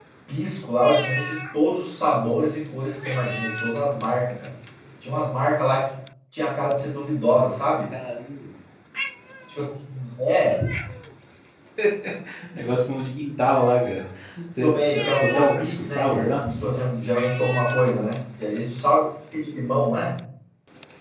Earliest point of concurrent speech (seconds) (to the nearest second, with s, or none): 15 s